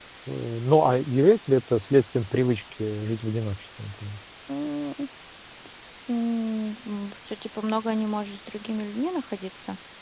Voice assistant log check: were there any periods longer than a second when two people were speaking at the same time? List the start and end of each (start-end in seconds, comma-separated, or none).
none